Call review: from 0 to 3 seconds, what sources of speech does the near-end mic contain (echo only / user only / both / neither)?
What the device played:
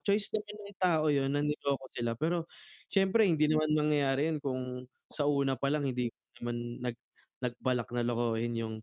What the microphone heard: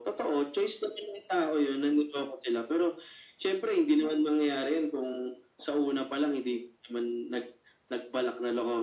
echo only